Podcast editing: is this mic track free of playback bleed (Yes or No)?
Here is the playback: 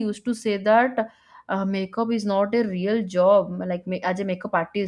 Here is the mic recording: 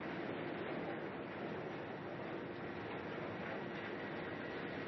Yes